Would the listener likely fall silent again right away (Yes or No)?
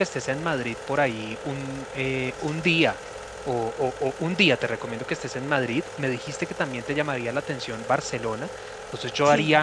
Yes